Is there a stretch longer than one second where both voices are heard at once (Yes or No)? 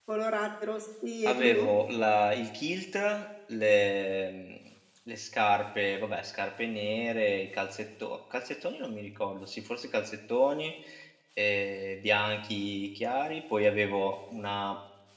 No